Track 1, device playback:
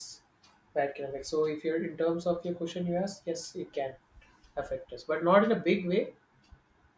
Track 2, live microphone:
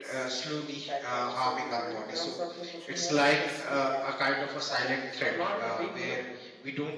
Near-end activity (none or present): present